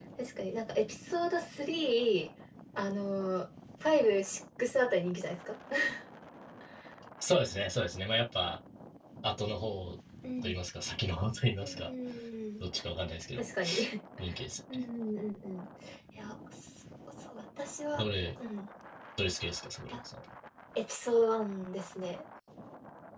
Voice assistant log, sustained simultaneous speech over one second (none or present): none